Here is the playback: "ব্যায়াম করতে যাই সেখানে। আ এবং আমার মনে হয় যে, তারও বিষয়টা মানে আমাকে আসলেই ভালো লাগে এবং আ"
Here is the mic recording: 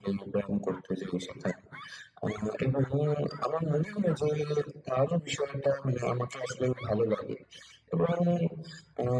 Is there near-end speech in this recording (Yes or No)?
No